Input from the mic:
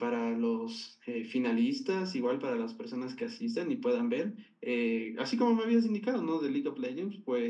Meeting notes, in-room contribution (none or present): none